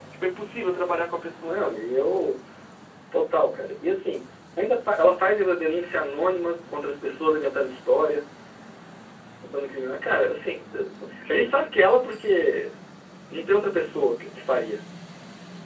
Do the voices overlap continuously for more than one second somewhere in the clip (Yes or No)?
No